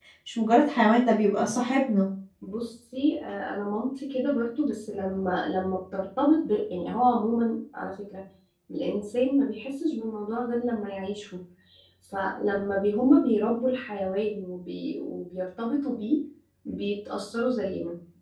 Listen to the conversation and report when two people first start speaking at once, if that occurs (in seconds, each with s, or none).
none